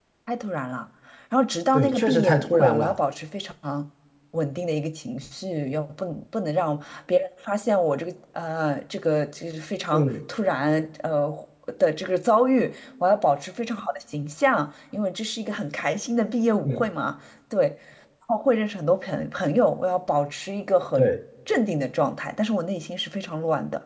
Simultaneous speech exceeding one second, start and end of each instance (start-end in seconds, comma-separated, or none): 1.7-3.0